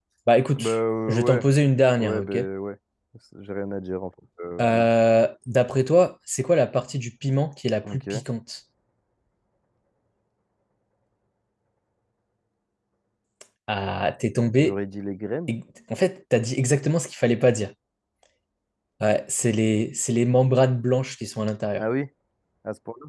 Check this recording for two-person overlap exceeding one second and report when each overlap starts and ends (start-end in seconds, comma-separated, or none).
none